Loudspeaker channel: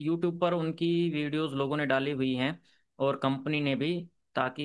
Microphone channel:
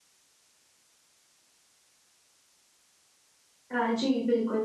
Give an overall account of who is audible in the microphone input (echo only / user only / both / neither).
user only